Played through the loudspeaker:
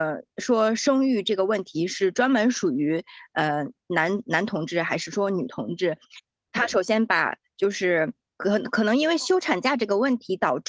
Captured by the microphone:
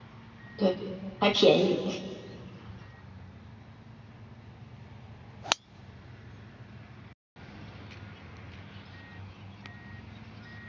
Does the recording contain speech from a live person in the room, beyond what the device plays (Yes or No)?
Yes